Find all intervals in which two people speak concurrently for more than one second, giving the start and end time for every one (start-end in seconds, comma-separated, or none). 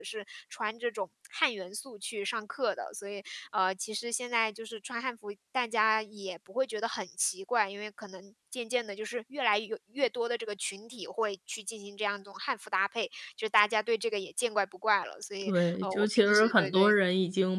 15.4-16.9